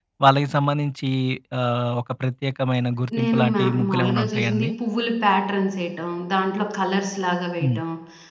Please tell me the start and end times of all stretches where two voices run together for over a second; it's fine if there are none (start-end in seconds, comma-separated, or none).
3.2-4.7